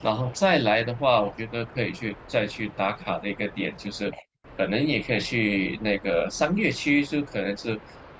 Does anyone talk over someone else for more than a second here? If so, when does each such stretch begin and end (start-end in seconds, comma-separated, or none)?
none